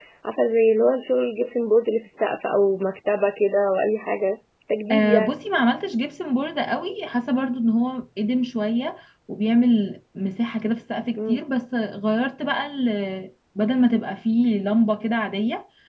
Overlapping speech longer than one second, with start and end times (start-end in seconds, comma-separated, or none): none